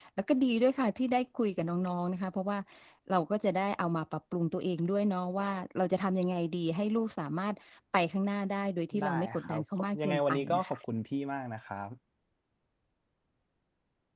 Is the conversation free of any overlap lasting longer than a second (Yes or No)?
No